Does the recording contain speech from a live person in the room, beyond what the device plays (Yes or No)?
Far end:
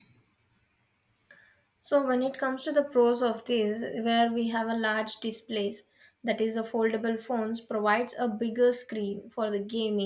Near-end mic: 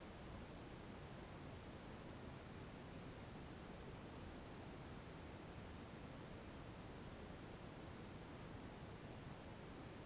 No